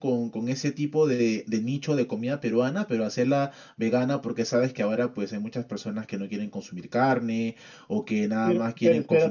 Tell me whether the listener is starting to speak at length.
Yes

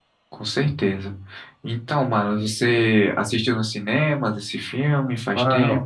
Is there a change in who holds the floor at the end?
Yes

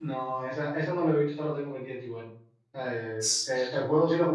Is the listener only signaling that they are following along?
Yes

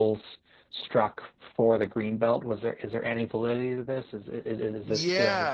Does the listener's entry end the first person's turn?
Yes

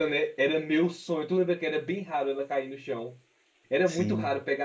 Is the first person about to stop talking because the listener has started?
No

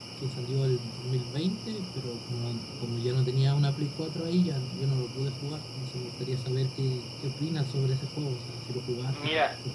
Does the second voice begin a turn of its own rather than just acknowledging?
Yes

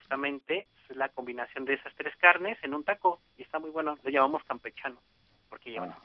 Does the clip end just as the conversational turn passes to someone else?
Yes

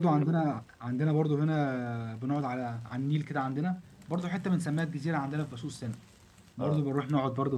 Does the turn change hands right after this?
No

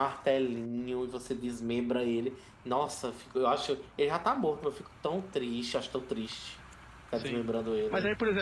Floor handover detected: Yes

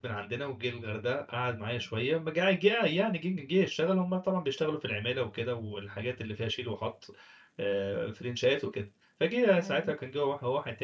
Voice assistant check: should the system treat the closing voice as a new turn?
No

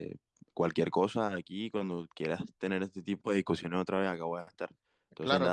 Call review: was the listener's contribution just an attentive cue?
Yes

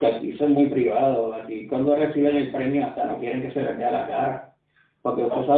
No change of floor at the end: Yes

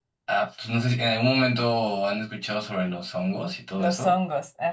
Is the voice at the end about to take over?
Yes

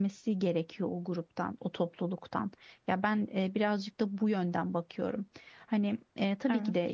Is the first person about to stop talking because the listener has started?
No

